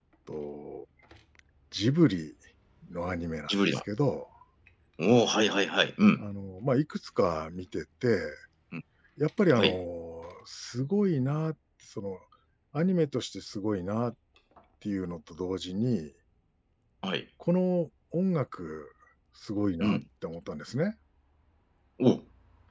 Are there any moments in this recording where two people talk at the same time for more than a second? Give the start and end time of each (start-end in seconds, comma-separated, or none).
none